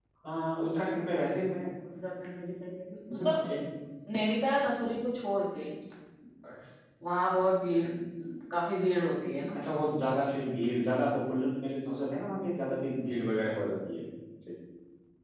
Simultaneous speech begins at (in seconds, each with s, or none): none